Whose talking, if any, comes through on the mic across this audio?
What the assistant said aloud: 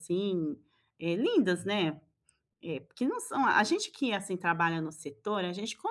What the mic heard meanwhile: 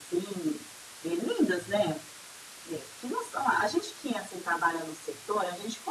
echo only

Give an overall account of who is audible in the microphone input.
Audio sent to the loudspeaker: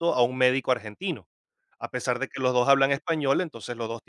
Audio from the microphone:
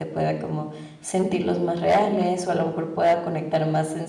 user only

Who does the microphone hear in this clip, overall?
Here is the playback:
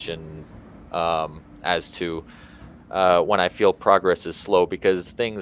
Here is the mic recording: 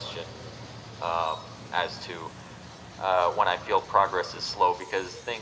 echo only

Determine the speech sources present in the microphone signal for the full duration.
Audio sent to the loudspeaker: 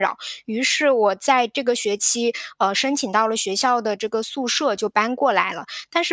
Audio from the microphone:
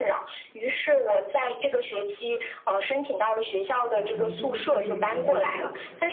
both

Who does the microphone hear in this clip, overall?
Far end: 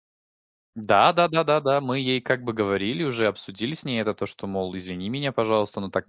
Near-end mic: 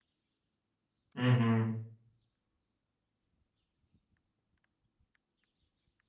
user only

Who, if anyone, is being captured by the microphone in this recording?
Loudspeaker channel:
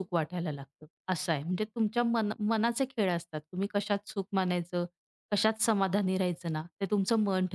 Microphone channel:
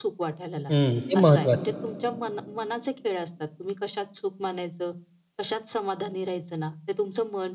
both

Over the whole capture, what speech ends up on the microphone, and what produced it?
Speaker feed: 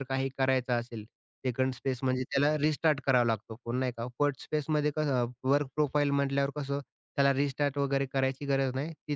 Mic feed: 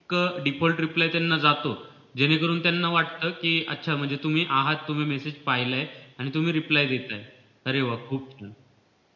user only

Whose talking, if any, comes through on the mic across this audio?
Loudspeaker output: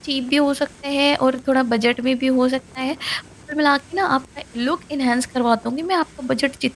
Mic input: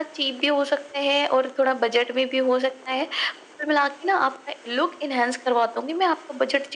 echo only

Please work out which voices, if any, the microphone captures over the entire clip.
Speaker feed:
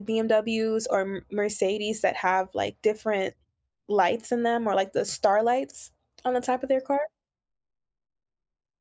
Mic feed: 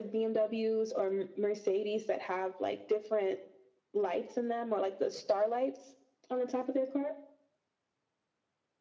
echo only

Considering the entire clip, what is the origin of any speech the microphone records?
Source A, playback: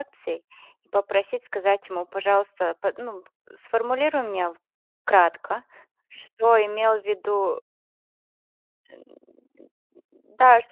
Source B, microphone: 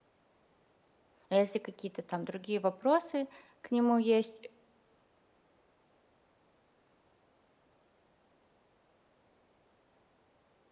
user only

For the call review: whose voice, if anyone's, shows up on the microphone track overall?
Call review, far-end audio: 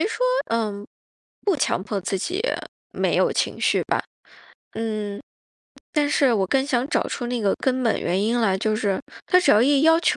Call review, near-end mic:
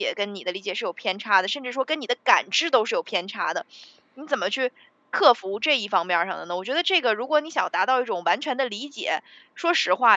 user only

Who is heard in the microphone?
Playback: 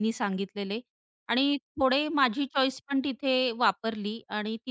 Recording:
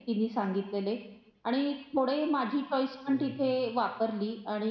both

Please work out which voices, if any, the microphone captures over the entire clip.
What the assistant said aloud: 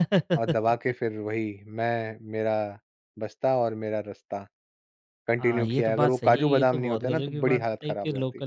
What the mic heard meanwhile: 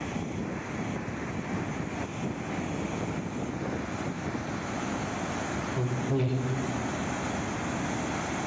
user only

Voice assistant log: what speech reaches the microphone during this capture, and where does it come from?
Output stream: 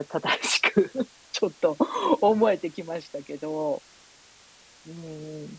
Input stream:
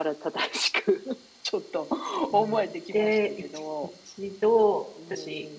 both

